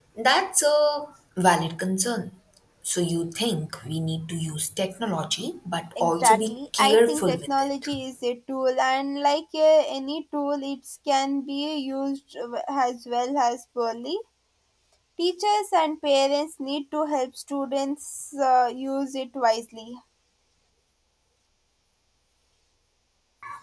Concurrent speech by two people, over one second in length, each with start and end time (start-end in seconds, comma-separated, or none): 6.0-7.9